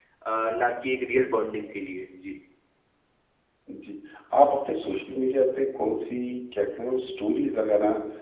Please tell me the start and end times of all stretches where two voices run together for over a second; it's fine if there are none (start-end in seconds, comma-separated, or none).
none